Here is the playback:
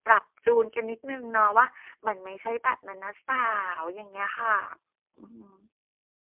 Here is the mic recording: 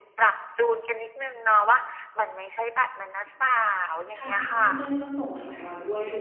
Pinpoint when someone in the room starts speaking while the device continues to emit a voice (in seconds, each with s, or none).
4.2 s